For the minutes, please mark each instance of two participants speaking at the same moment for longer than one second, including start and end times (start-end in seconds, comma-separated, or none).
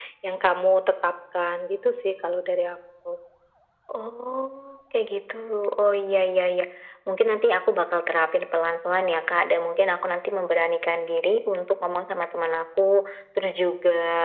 none